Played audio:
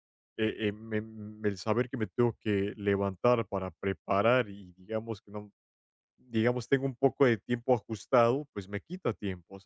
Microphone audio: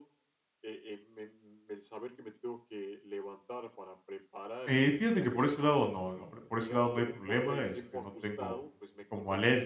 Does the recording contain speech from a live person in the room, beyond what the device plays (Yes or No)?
Yes